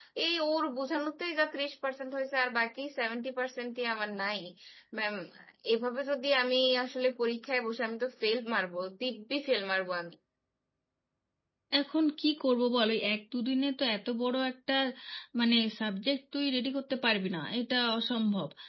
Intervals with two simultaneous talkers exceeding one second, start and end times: none

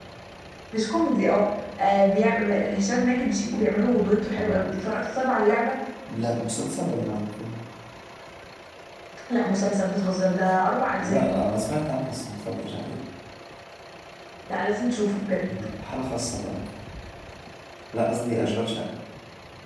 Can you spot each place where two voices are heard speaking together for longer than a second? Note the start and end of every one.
none

